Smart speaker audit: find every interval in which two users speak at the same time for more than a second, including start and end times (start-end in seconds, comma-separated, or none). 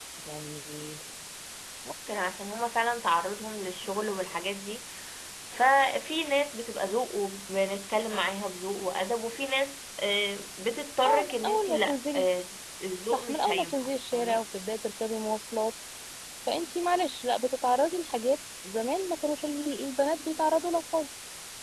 11.1-12.3, 13.1-14.4